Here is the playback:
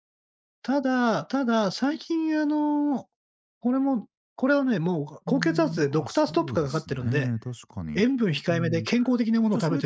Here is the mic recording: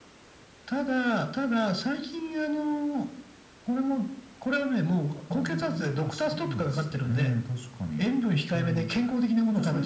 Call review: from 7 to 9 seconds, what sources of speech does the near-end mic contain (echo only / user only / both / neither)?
echo only